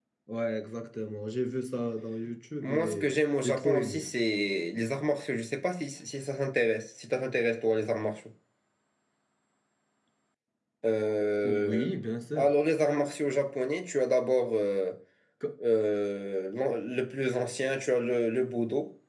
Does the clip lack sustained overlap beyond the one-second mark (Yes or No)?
No